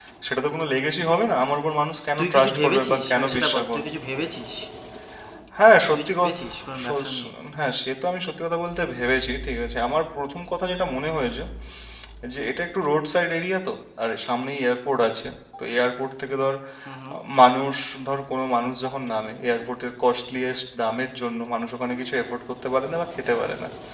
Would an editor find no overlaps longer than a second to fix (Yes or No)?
No